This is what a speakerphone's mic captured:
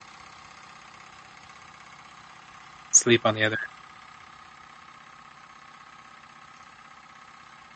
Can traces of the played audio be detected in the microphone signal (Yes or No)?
No